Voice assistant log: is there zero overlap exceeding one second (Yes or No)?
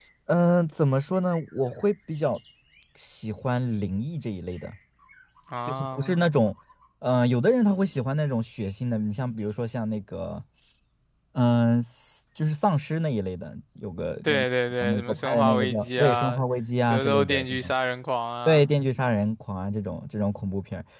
No